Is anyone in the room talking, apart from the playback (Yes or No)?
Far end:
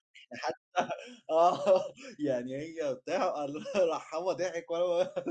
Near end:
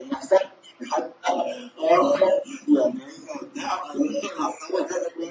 No